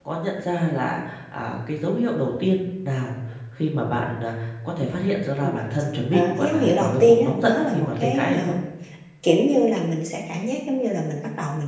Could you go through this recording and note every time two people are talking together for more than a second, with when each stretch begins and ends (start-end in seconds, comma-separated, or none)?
6.1-8.6